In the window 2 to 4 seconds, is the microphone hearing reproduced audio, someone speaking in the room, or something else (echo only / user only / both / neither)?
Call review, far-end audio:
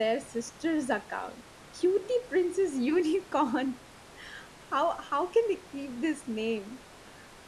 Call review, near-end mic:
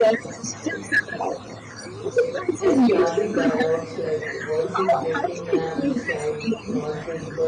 both